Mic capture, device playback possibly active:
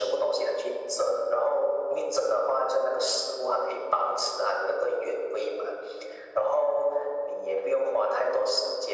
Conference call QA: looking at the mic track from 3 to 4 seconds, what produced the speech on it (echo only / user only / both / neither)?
echo only